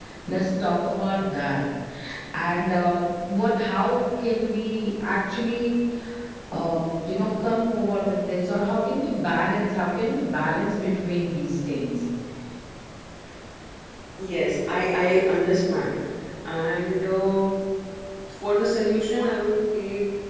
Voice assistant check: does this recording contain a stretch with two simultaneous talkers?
No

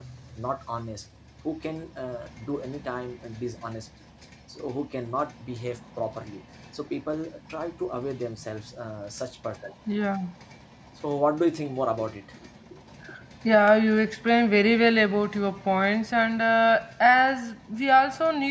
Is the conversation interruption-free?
Yes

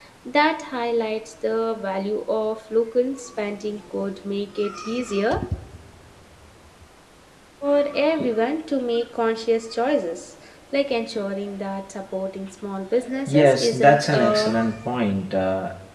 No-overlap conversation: No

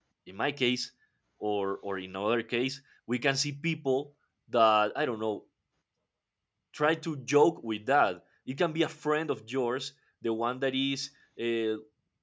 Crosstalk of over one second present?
No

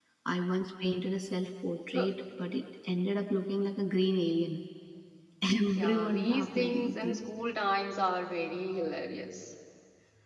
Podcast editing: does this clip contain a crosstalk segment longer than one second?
Yes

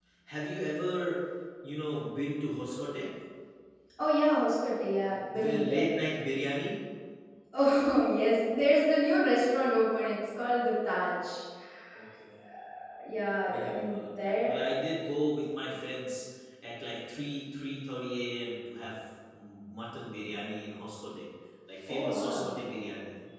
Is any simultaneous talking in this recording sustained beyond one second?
Yes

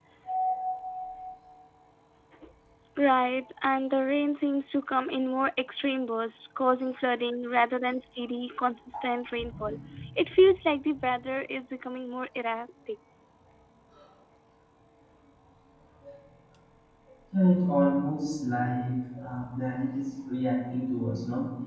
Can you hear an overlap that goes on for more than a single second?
No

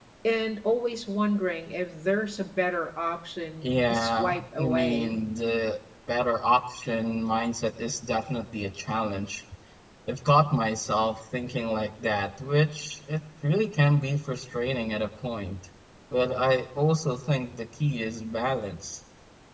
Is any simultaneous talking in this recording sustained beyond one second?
Yes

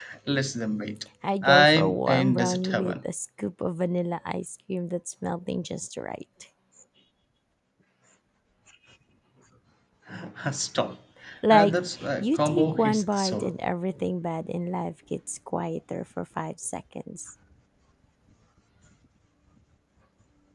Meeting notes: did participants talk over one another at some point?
Yes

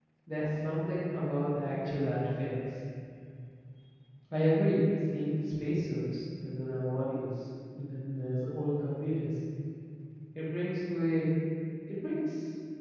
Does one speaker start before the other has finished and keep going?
No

